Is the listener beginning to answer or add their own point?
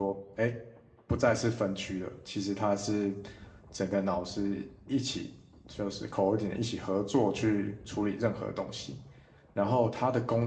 No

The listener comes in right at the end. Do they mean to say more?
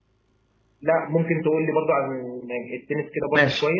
Yes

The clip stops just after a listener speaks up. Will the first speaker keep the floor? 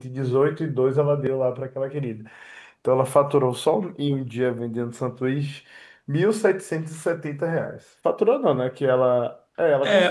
No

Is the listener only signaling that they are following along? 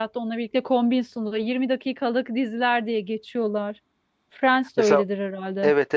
No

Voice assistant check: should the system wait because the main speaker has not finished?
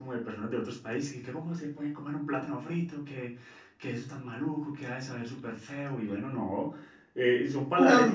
Yes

